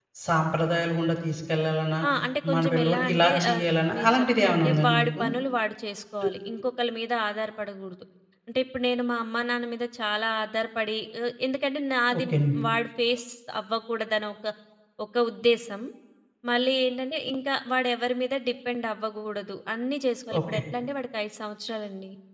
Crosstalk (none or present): present